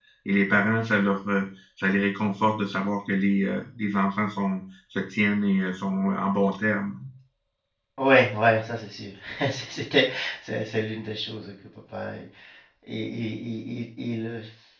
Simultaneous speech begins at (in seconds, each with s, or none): none